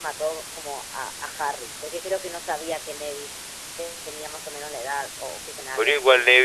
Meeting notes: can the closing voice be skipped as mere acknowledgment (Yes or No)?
No